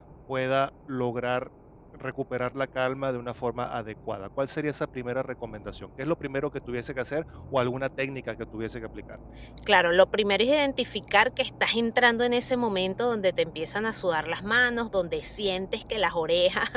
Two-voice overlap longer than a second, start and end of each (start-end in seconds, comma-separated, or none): none